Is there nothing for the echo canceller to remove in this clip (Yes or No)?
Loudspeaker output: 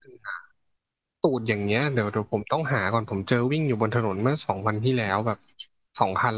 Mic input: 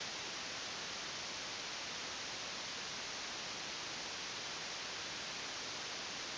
Yes